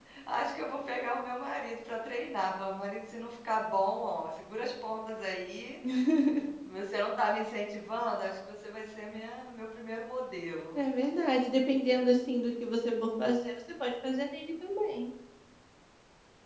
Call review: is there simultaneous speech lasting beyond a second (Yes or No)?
No